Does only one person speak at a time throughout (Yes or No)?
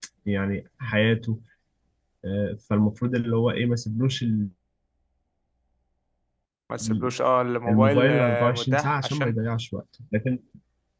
No